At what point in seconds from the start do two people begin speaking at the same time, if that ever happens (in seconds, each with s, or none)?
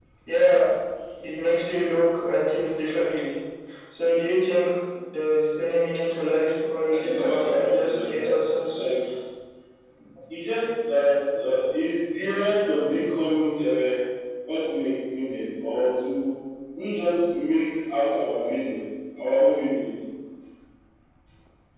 6.9 s